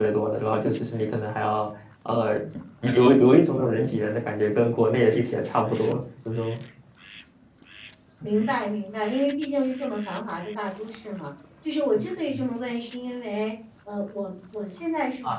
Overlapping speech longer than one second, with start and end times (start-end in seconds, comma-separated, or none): none